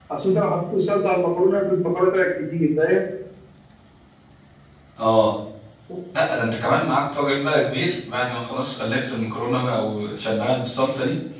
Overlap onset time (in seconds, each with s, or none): none